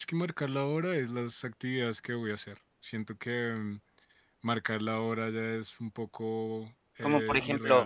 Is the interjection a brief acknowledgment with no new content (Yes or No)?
No